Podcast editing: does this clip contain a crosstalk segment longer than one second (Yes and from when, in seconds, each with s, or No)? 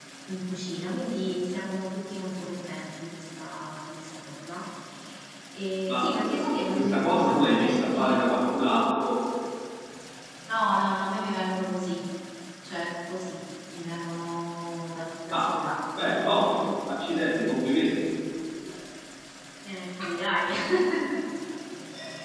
Yes, from 5.9 s